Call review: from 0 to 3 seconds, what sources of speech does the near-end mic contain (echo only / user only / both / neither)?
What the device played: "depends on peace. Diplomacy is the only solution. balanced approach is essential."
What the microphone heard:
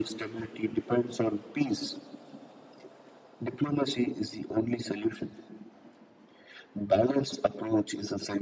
echo only